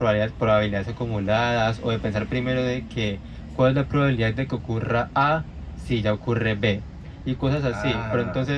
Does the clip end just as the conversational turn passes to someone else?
No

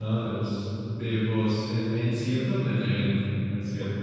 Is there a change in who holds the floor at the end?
Yes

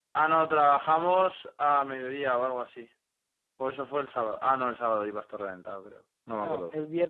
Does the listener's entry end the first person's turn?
Yes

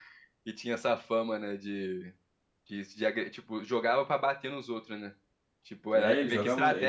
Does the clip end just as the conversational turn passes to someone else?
Yes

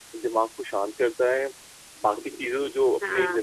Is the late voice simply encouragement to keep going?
Yes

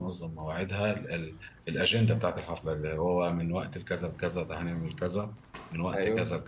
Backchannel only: No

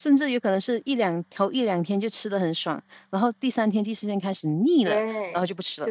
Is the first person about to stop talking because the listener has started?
Yes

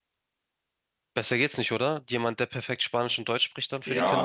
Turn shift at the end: Yes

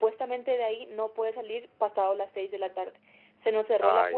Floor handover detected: No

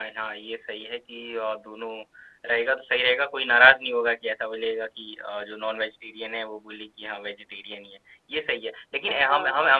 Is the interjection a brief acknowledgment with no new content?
Yes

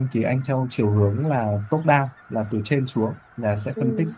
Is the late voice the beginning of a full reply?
No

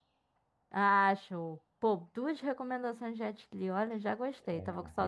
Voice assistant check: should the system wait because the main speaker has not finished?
No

